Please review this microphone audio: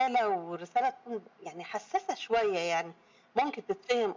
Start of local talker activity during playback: none

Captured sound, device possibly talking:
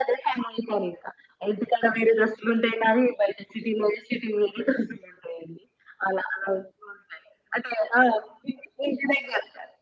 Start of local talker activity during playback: none

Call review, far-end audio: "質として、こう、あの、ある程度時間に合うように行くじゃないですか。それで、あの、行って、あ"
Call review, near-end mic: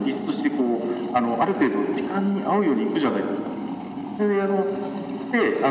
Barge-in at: none

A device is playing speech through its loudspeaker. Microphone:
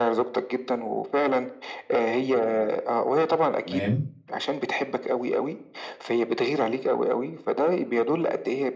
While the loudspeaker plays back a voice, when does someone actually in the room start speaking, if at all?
3.6 s

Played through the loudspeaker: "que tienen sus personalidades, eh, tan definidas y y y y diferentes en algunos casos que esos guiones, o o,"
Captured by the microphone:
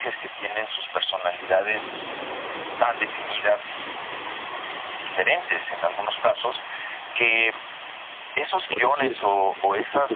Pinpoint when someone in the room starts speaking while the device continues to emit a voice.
8.7 s

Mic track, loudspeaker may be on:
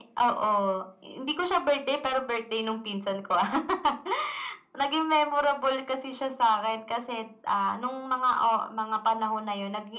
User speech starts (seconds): none

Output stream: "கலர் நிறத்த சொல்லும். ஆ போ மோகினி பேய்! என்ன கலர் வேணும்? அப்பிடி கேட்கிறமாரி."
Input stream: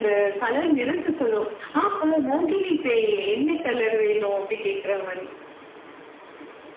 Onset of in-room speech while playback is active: none

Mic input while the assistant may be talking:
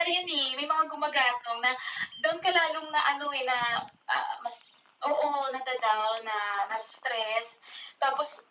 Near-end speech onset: none

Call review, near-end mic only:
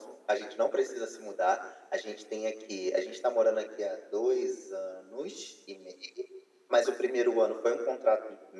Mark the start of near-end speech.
none

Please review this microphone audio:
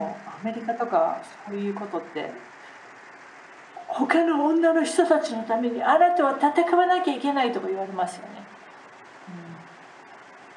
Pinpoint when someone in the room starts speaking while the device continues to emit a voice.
none

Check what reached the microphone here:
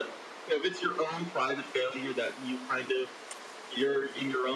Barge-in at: none

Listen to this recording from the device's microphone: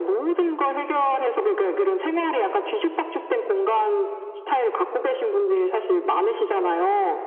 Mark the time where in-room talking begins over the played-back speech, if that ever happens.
none

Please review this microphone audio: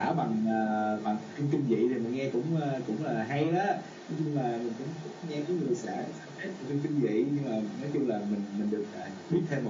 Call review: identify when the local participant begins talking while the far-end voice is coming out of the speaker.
none

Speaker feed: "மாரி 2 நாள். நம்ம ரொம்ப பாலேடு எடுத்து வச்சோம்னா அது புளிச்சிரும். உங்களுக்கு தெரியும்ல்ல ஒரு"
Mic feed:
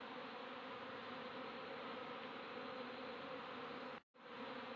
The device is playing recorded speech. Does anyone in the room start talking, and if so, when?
none

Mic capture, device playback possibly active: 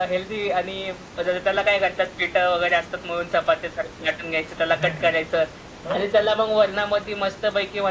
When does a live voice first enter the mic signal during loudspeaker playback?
4.7 s

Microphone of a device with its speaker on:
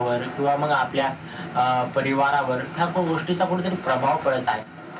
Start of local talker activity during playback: none

